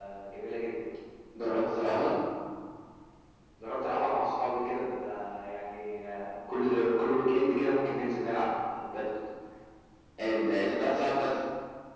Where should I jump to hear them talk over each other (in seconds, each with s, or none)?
none